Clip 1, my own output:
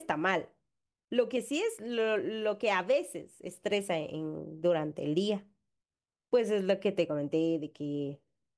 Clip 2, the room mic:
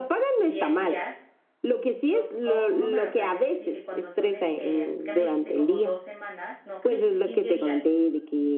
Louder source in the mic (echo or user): echo